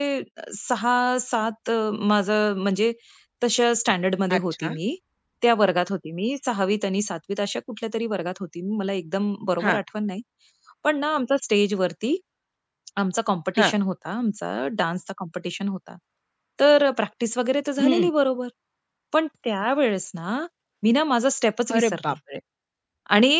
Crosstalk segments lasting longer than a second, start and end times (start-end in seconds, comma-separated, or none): none